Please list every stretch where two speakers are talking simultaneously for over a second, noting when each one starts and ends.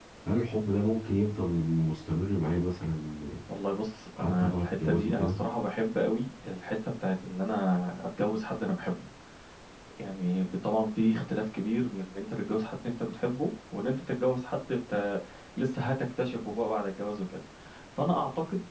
4.2-5.4

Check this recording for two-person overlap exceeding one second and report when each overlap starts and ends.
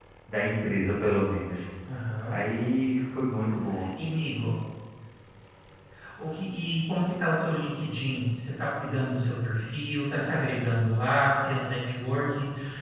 none

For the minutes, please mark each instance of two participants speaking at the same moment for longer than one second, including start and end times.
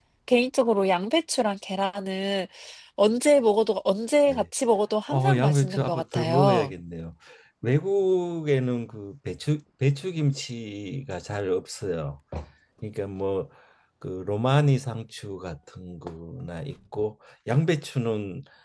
5.1-6.7

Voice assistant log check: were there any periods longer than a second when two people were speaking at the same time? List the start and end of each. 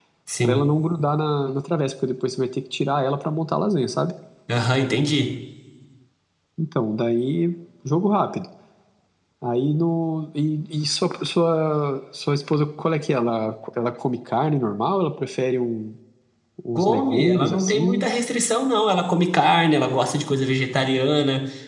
16.8-18.1

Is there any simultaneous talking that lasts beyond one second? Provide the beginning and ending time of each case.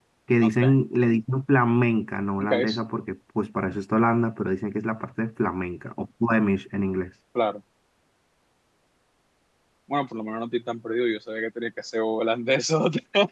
none

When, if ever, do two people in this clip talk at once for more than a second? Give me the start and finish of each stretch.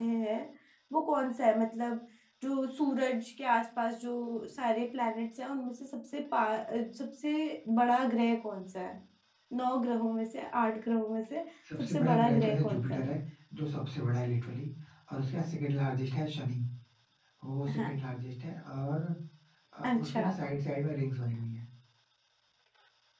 11.8-13.0

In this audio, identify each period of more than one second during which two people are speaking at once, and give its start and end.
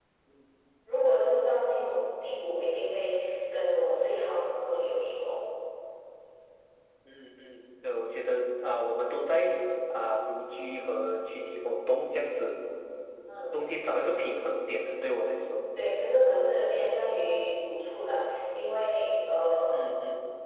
none

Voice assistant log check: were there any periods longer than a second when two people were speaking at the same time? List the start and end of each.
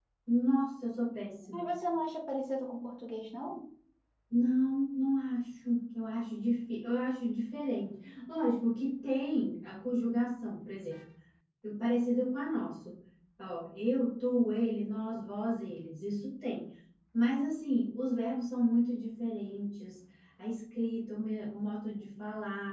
none

